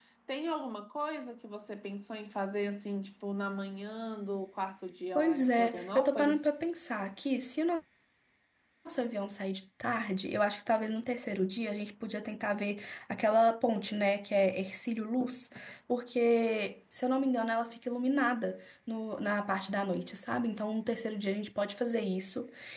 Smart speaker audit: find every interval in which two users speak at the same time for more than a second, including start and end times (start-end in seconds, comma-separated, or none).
5.2-6.5